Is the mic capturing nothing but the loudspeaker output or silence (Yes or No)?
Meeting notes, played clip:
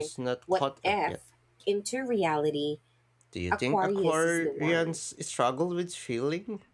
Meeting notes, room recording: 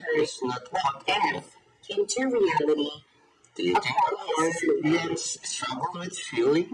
Yes